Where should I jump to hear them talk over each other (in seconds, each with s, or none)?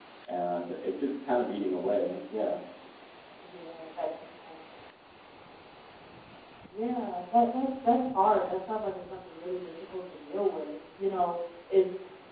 none